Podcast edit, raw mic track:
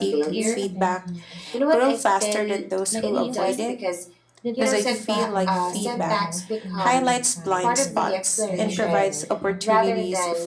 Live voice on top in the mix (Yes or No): No